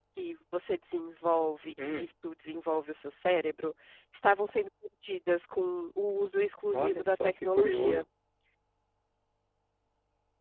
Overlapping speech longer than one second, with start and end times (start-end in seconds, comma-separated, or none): 6.7-8.0